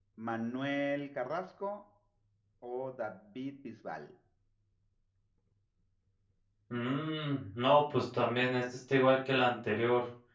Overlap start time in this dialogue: none

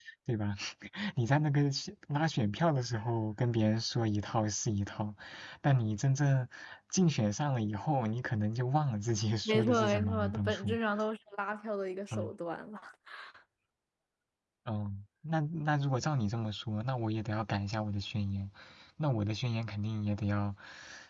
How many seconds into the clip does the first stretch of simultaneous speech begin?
9.4 s

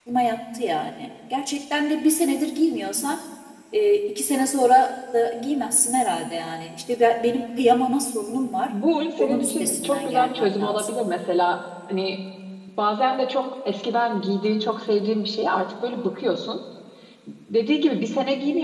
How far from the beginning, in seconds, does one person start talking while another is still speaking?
9.2 s

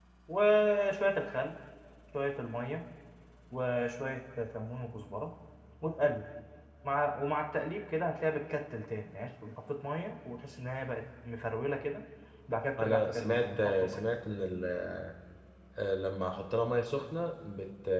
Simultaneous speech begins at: 12.8 s

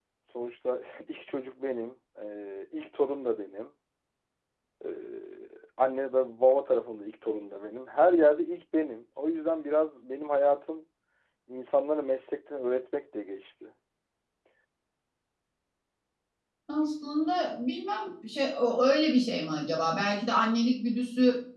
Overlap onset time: none

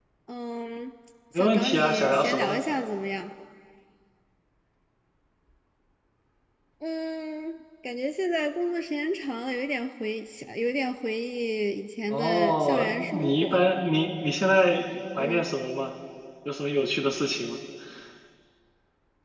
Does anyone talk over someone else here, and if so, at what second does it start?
1.4 s

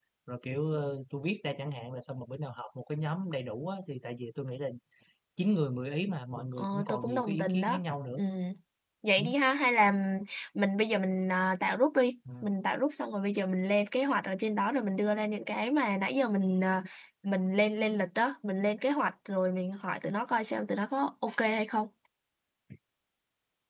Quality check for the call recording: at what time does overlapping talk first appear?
6.6 s

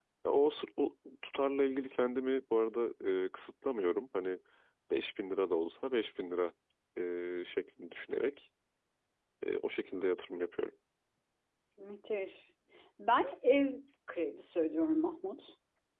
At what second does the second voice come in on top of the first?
none

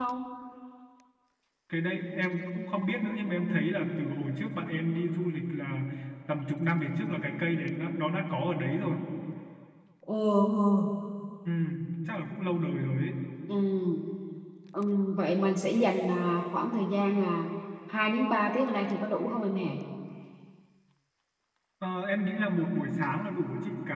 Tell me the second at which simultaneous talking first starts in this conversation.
none

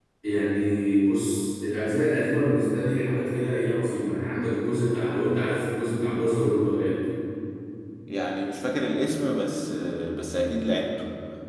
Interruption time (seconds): none

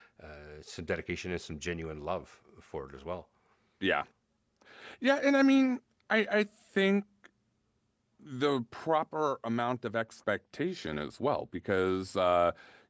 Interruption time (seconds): none

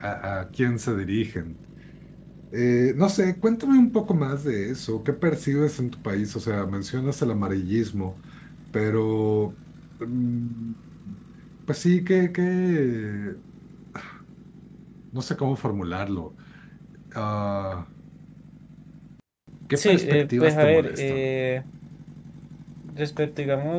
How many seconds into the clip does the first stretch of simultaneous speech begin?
19.8 s

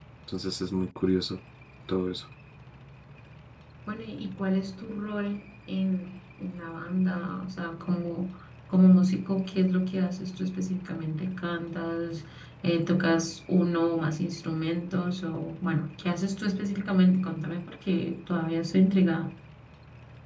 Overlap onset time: none

